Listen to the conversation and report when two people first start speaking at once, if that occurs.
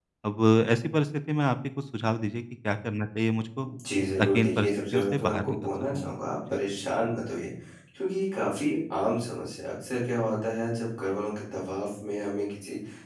4.2 s

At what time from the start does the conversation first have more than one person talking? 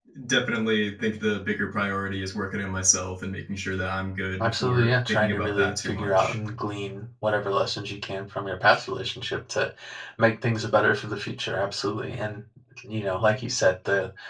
4.4 s

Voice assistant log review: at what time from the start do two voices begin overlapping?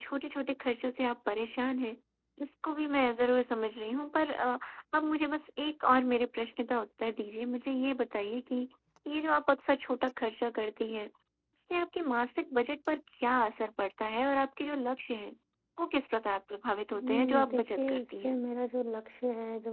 16.9 s

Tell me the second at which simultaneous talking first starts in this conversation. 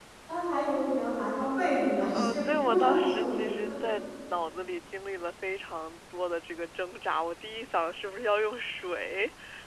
2.1 s

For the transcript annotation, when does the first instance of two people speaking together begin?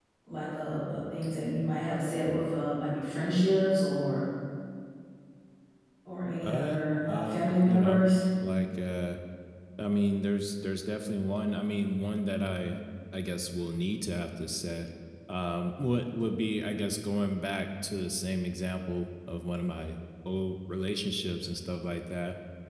6.4 s

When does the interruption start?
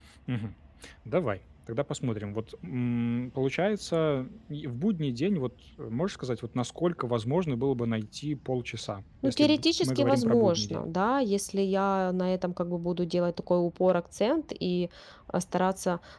9.2 s

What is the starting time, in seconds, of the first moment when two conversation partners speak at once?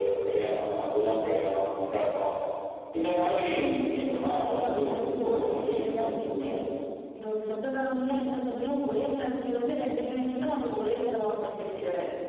4.3 s

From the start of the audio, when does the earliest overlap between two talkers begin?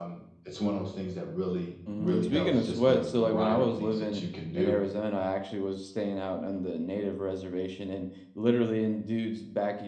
1.9 s

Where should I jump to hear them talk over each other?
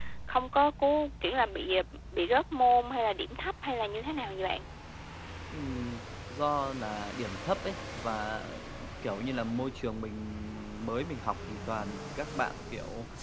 none

